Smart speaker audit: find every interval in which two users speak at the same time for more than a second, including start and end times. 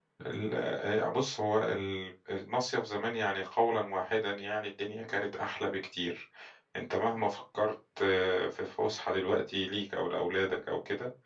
none

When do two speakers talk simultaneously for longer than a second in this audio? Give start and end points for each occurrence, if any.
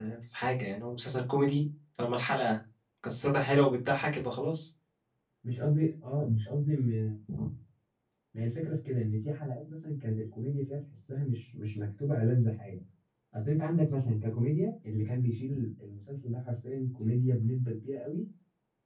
none

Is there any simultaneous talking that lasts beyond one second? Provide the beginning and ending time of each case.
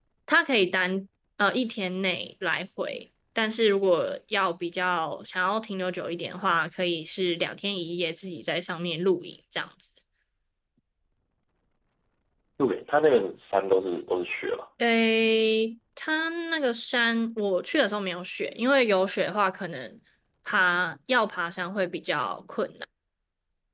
none

